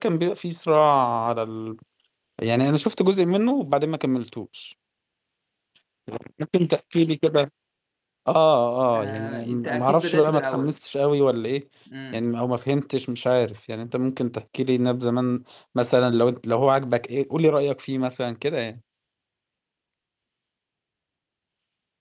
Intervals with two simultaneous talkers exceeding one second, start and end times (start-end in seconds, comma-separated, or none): 8.9-10.8